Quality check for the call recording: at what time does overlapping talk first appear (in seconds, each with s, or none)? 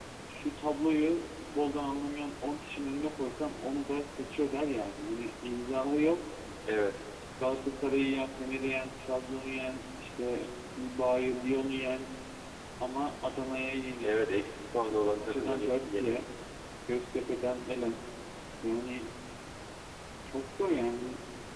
14.8 s